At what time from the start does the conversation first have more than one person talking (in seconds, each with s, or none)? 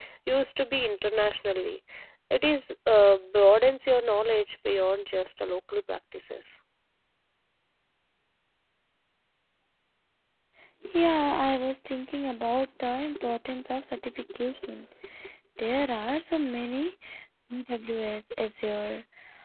none